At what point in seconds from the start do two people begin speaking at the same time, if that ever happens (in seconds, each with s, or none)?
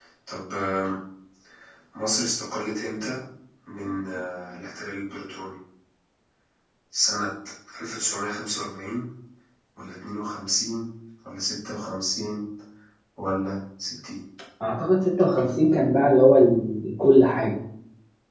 none